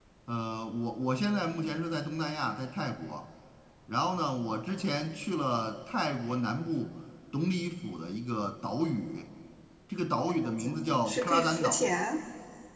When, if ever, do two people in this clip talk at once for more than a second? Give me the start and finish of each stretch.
10.4-11.8

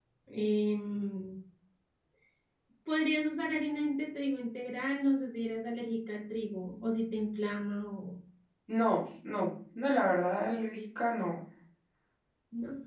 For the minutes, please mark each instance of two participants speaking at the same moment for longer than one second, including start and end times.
none

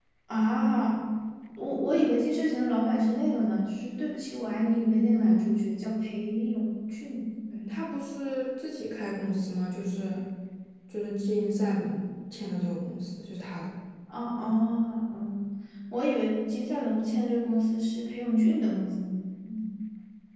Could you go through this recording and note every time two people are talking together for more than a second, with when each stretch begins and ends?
none

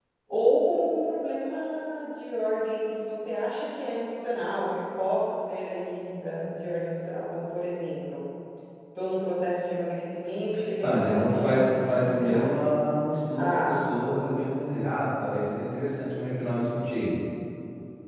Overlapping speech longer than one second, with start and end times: 10.8-12.5

